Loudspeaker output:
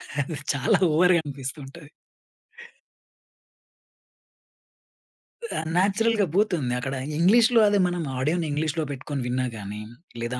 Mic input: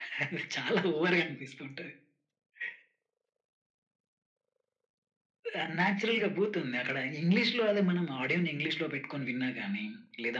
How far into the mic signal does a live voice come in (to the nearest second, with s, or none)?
none